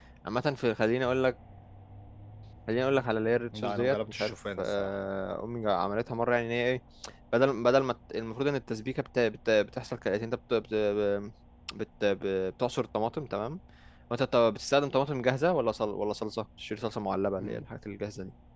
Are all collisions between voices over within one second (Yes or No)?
No